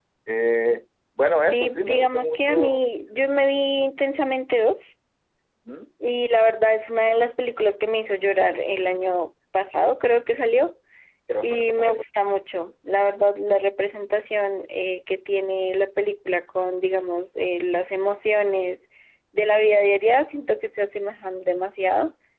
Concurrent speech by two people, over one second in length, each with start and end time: 1.5-2.8

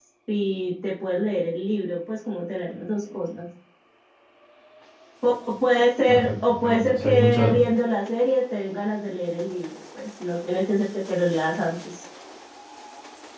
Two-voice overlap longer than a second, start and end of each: 6.1-7.7

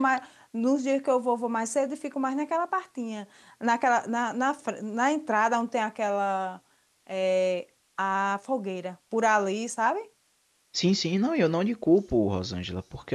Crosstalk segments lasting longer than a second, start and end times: none

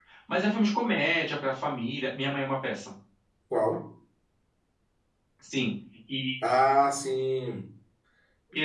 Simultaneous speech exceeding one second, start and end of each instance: none

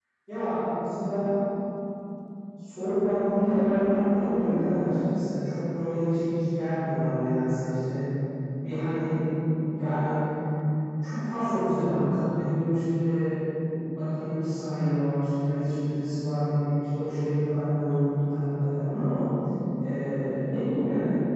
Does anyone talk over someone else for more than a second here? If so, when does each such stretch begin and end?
3.4-4.8

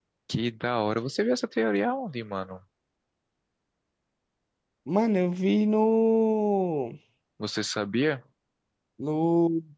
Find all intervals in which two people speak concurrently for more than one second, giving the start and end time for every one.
none

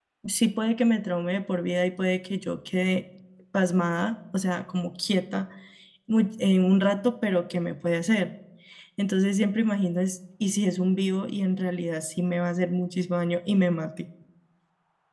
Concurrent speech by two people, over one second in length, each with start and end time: none

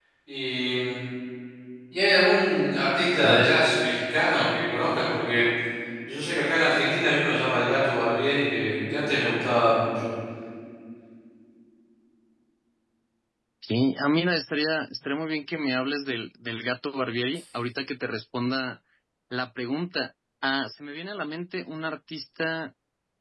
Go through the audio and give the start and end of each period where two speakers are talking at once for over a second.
none

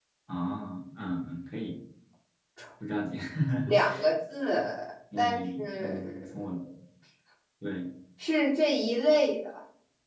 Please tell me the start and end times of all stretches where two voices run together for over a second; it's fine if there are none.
5.2-6.4

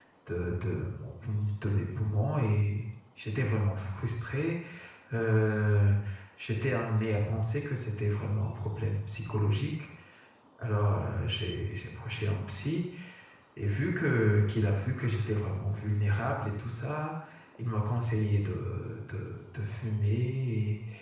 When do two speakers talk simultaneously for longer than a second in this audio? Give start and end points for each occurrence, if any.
none

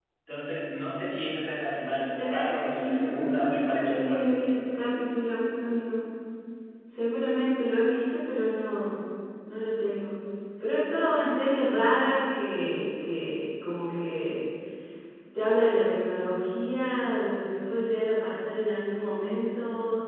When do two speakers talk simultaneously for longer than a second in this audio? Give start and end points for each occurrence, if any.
2.1-4.3

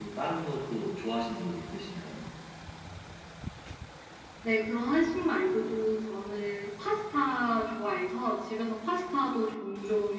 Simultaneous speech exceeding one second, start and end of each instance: none

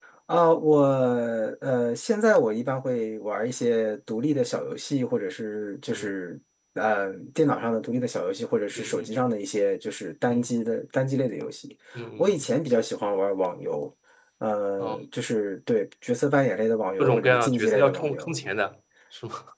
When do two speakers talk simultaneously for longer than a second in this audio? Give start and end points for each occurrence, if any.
17.0-18.3

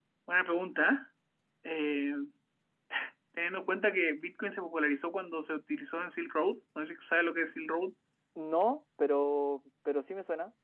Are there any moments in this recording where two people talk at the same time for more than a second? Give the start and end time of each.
none

